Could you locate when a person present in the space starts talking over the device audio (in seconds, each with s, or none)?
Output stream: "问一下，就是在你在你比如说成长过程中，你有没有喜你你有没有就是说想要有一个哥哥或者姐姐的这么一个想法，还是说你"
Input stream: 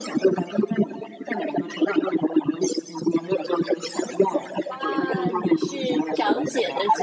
4.7 s